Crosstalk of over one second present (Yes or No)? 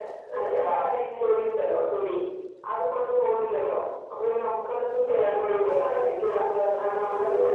Yes